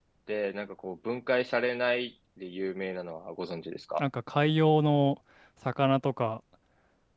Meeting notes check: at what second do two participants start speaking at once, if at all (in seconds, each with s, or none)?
none